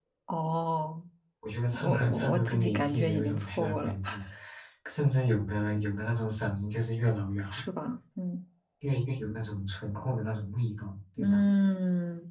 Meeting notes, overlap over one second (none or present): present